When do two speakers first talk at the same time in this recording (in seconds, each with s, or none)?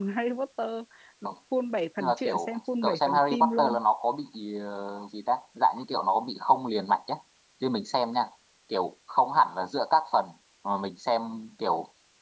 2.0 s